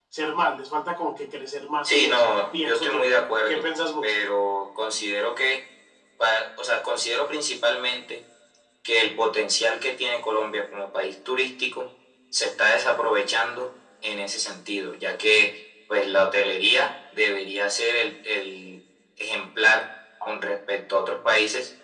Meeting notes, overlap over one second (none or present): present